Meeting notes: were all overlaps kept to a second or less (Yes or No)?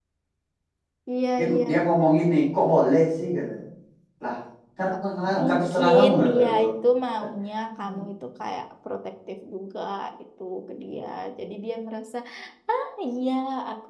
No